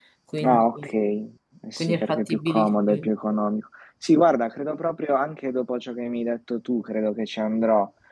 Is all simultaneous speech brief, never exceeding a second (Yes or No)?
No